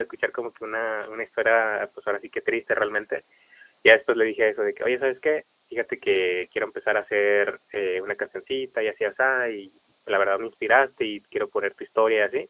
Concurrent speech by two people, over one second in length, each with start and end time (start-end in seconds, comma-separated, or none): none